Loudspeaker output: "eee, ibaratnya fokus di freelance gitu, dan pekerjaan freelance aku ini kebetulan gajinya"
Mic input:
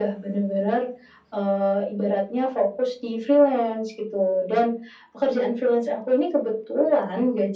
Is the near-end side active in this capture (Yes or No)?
No